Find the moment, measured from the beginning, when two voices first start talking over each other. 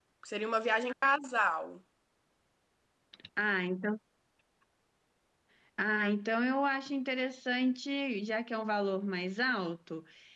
none

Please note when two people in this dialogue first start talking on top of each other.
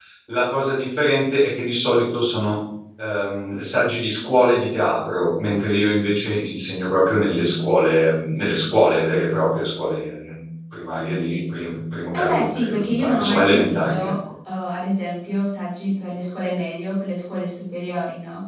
12.1 s

